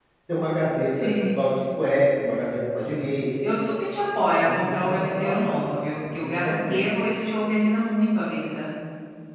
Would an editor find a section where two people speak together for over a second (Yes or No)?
Yes